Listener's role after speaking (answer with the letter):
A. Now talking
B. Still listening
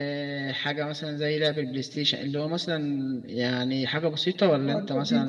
A